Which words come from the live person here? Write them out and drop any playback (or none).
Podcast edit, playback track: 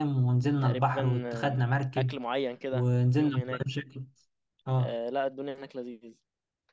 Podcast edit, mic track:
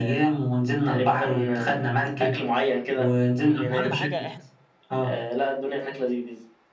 اهم حاجه احنا